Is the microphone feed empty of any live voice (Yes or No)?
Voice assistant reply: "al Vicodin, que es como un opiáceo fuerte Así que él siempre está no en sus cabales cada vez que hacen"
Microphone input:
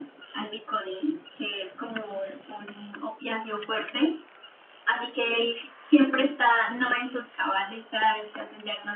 Yes